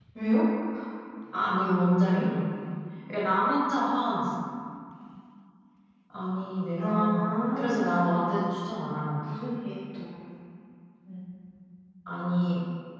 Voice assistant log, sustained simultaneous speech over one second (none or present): present